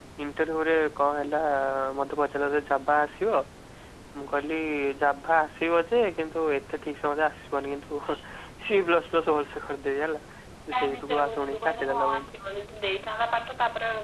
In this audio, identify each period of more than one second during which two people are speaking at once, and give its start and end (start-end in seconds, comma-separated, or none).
10.8-12.3